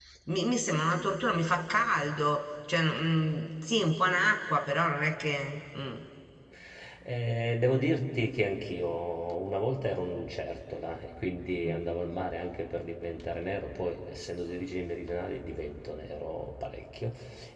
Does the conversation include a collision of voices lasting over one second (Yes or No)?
No